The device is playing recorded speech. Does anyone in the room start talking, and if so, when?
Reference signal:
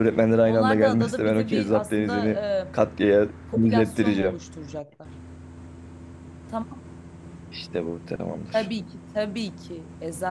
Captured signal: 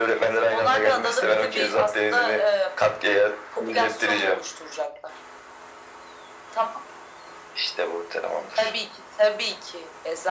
1.2 s

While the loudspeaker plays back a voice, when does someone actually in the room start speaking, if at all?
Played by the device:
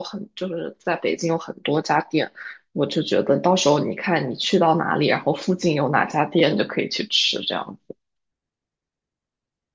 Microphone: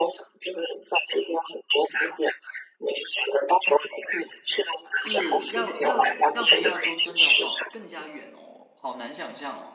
4.9 s

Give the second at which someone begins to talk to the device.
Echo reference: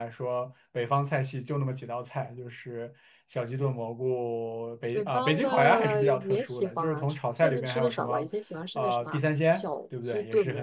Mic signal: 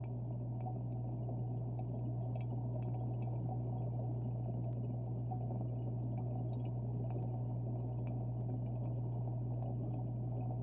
none

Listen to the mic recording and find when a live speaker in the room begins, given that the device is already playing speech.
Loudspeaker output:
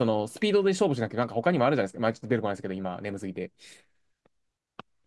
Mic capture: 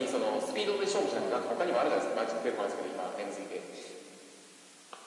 1.1 s

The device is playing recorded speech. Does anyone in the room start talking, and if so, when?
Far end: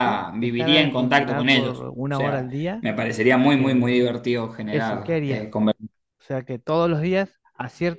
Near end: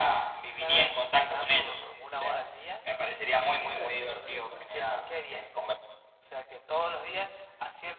3.4 s

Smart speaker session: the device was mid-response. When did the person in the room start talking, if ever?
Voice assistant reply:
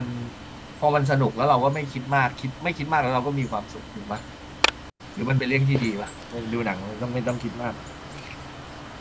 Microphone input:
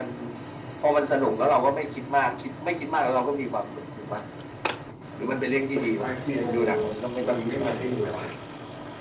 6.0 s

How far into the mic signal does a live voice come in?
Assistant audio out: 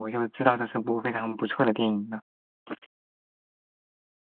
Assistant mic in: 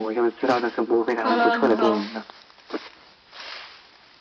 1.2 s

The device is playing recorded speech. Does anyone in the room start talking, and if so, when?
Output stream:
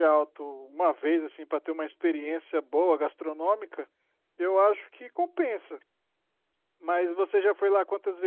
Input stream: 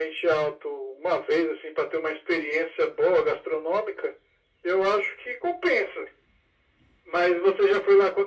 none

